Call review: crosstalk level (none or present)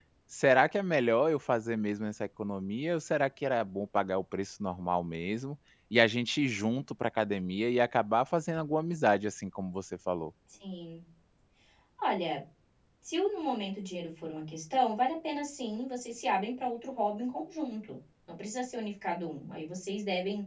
none